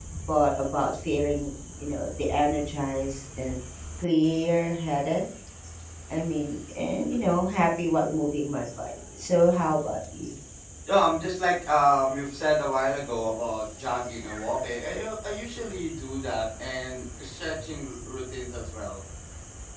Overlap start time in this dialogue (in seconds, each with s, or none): none